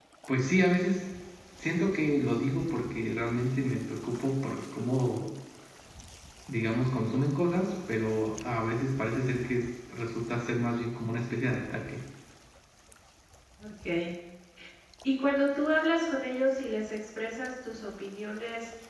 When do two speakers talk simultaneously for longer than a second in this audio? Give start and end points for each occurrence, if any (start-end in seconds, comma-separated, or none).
none